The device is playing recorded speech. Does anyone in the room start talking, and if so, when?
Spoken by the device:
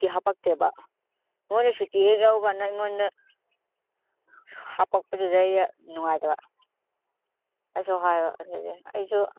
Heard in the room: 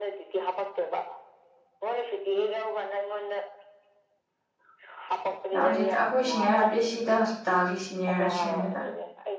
5.6 s

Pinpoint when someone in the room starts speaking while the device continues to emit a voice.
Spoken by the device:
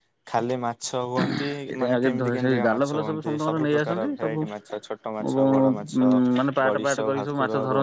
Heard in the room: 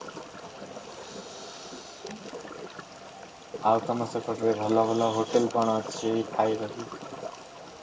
3.7 s

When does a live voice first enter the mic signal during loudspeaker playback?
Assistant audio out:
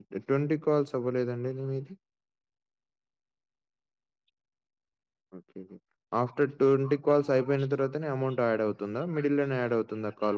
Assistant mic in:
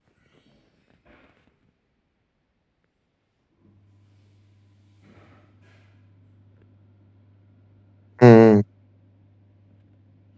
8.2 s

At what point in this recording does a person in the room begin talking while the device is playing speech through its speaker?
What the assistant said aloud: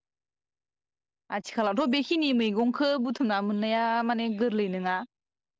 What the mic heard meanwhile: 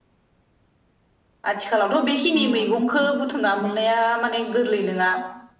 2.4 s

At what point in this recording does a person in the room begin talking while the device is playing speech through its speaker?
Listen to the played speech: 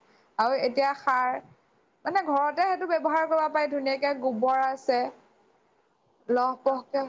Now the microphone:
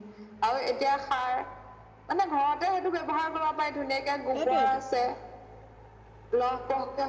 4.3 s

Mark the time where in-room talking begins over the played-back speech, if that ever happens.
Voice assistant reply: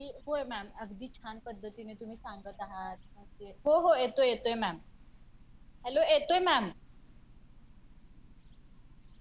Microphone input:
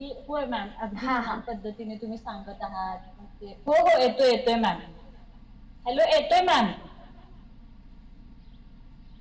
1.0 s

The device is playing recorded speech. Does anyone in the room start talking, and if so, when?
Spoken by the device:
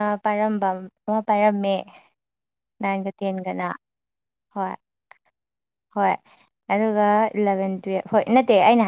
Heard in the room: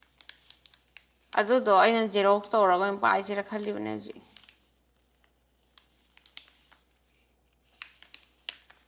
1.4 s

